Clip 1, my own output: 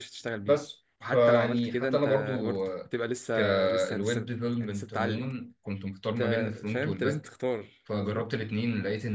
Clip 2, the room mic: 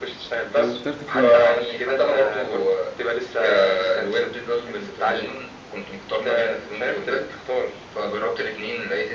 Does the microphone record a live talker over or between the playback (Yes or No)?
Yes